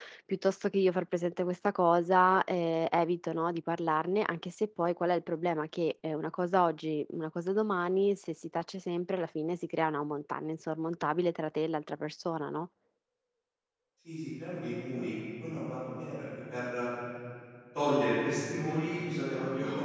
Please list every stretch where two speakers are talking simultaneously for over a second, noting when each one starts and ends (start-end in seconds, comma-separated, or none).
none